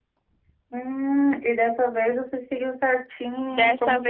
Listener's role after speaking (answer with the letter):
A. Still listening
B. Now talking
B